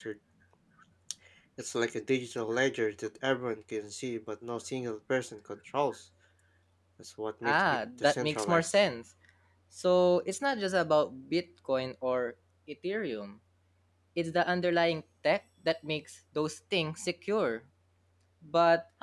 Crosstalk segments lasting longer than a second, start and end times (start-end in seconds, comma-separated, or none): 7.4-8.8